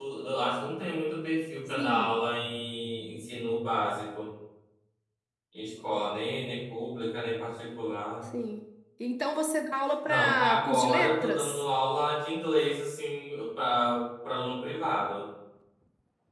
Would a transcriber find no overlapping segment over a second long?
No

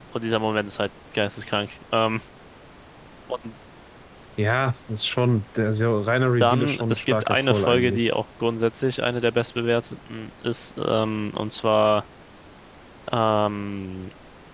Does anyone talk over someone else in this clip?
Yes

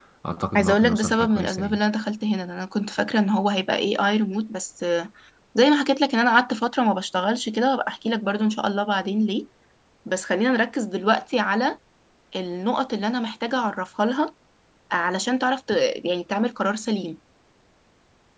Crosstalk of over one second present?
Yes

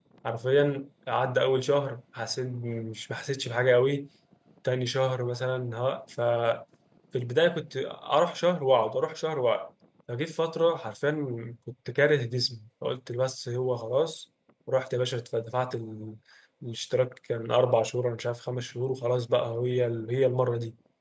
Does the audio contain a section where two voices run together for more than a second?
No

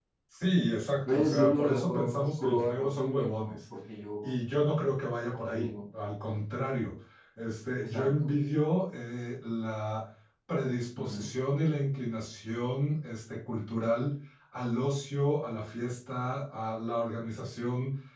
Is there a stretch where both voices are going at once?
Yes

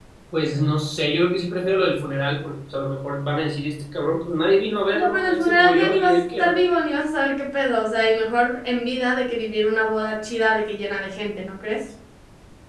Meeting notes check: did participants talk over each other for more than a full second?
Yes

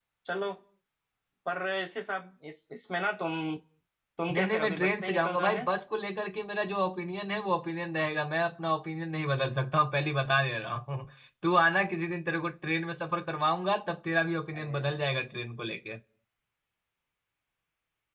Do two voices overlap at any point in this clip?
Yes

